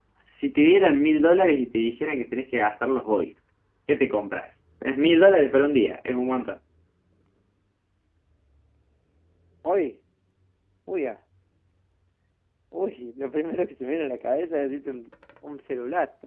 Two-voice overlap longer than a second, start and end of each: none

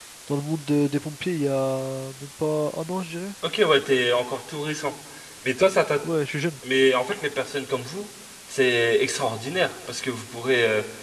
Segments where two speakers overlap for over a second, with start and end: none

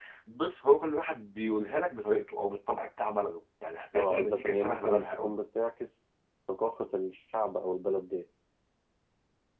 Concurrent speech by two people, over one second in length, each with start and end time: 4.0-5.3

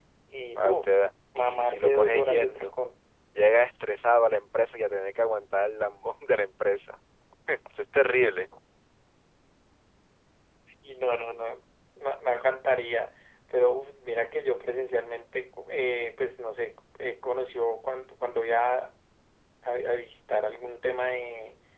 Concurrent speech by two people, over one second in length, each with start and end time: 1.4-2.7

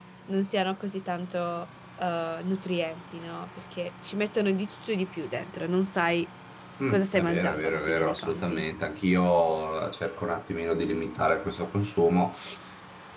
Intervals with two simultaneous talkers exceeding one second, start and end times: 6.9-8.6

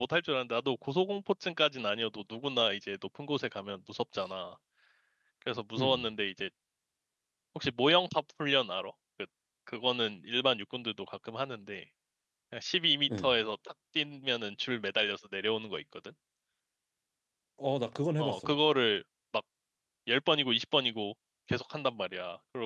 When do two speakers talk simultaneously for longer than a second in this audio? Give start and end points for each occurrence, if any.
none

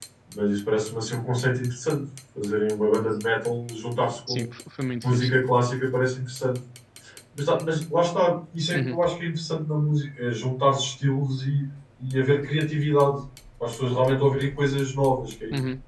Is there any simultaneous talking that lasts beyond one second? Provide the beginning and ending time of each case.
none

